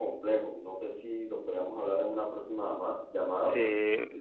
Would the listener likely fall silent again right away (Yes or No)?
No